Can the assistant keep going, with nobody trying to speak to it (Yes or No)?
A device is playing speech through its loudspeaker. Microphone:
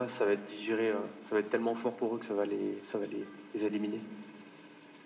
Yes